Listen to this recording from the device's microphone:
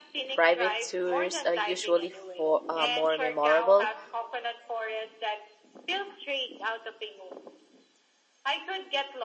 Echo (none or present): present